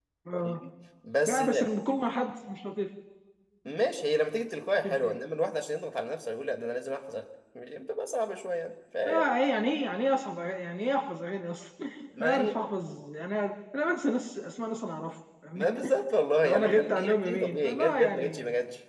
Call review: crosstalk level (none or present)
present